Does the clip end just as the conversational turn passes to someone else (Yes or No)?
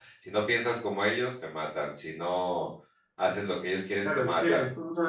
Yes